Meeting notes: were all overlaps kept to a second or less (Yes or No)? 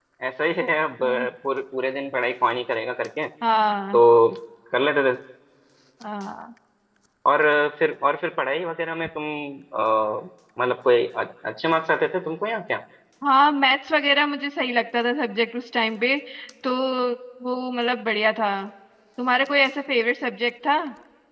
Yes